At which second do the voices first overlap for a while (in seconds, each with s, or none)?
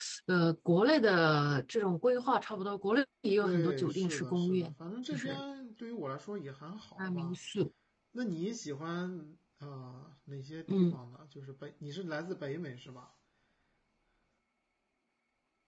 3.4 s